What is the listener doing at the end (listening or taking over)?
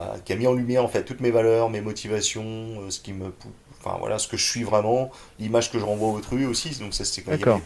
listening